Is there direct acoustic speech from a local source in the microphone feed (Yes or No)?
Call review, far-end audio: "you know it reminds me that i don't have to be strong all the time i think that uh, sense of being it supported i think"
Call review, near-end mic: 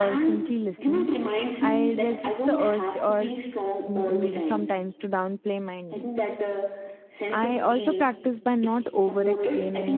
Yes